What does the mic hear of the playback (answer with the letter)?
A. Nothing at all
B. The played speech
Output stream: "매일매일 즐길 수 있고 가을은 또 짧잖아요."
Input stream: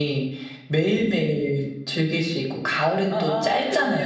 B